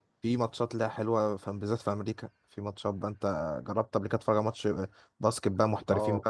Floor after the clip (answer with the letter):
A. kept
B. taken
B